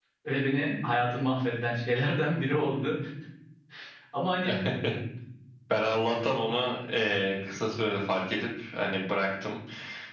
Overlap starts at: none

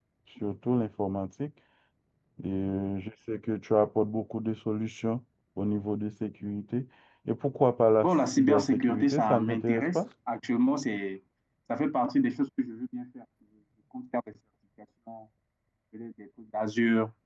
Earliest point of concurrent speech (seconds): 8.0 s

